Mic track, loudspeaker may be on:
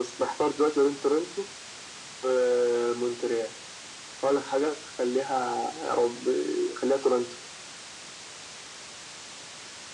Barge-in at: none

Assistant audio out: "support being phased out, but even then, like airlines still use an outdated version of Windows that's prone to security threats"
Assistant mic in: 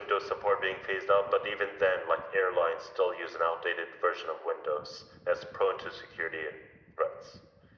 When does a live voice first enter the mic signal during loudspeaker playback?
none

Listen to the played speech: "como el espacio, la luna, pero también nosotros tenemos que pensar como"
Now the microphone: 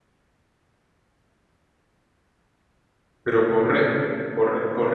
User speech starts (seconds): 3 s

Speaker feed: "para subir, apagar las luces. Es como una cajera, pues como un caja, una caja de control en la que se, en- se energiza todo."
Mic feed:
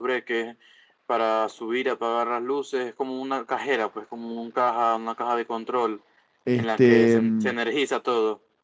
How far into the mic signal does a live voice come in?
6 s

